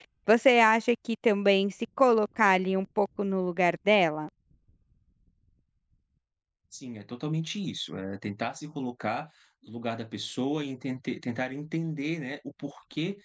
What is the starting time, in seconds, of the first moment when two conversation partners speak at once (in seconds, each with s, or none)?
none